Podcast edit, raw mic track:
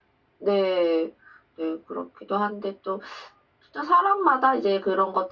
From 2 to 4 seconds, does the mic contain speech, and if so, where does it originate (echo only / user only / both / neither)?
user only